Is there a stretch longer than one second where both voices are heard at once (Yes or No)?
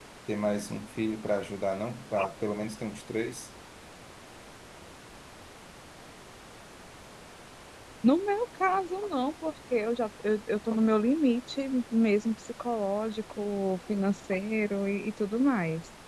No